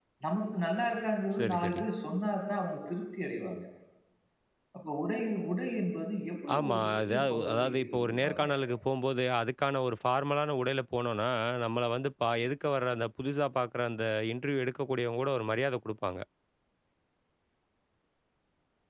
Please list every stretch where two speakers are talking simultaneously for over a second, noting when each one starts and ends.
6.5-8.5

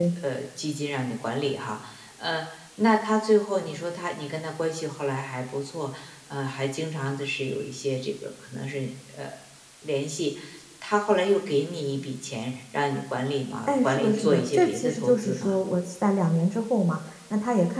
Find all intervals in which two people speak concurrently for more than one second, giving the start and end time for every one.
13.7-15.6

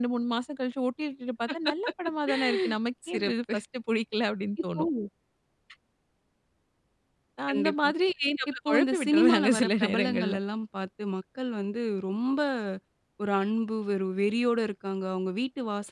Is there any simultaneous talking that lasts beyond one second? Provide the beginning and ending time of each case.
8.7-10.3

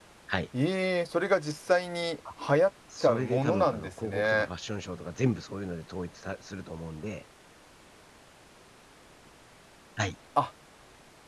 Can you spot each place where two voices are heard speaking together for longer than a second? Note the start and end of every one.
3.0-4.5

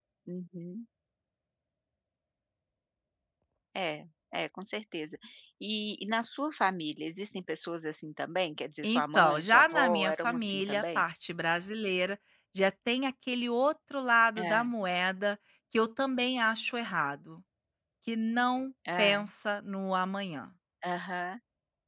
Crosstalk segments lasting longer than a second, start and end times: 8.8-11.0

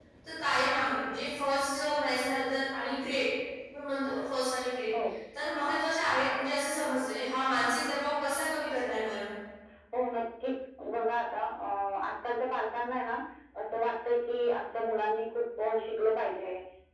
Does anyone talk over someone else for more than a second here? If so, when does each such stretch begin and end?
none

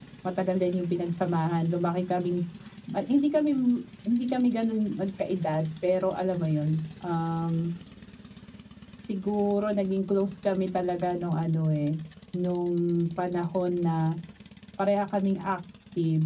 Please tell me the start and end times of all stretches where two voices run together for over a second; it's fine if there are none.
none

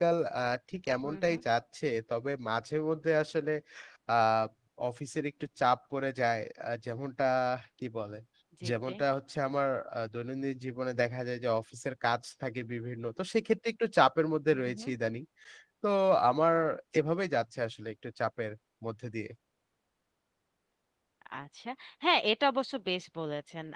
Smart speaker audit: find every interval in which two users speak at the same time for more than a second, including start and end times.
none

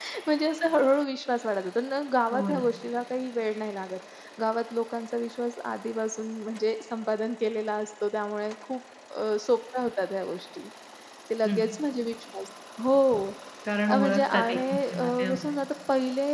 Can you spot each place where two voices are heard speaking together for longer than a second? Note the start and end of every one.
13.9-15.5

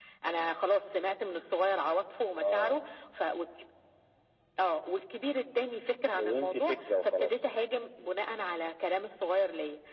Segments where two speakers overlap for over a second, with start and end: 6.2-7.5

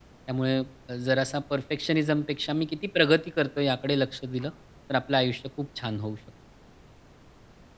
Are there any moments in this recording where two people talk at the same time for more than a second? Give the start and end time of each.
none

